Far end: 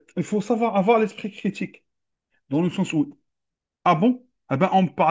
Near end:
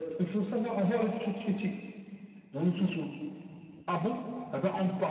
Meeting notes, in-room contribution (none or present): none